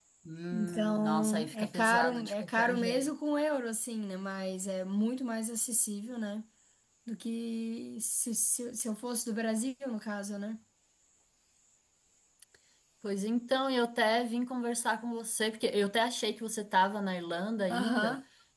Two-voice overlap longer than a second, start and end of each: 0.5-3.1

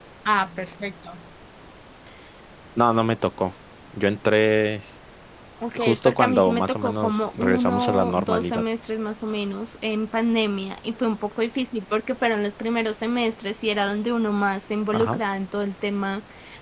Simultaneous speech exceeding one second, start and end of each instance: 5.8-8.6

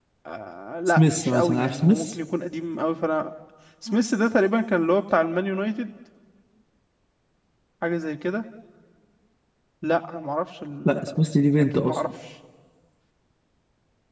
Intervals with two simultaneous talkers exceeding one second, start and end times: 0.9-2.1

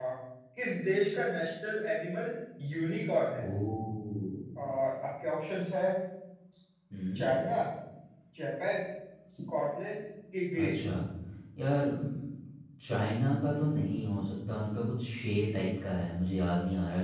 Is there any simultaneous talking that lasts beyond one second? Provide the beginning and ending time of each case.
none

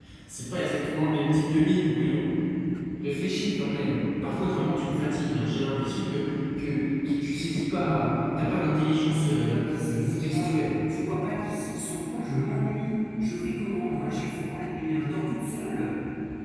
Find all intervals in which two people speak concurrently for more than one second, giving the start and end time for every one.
9.0-10.6

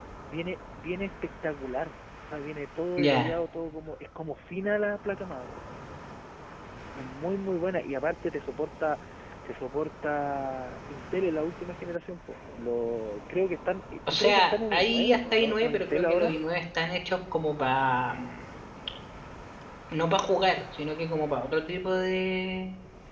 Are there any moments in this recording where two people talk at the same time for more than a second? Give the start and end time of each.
14.1-16.3

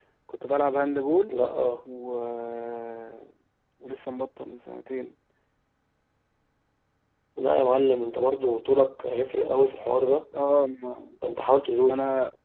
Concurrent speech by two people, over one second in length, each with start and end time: none

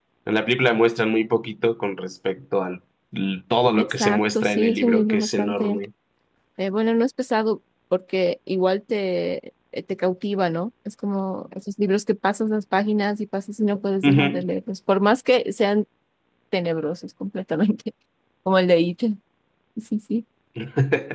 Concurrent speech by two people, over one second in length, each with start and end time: 3.8-5.8

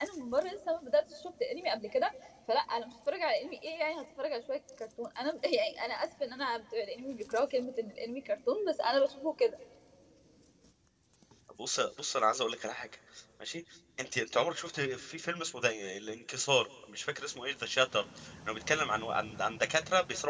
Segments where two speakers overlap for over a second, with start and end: none

